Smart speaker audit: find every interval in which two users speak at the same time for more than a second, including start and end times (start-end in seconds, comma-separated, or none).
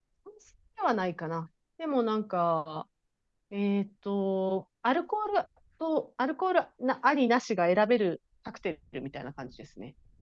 none